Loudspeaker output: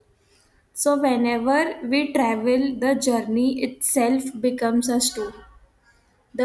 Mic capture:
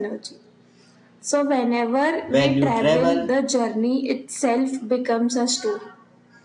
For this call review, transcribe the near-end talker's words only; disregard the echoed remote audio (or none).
When you travel,